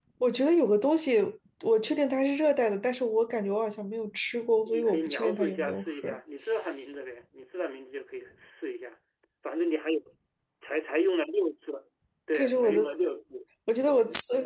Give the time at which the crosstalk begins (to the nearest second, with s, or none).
5 s